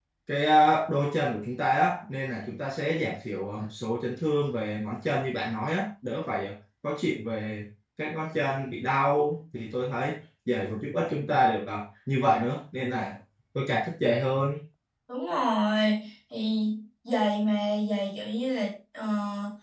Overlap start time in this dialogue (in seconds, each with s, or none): none